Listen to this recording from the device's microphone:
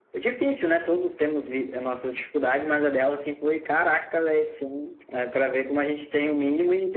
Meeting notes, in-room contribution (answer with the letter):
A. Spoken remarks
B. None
B